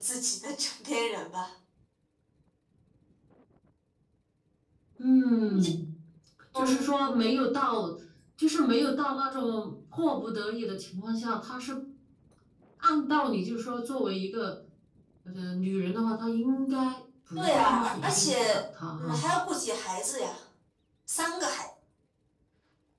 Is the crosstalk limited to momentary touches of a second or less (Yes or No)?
No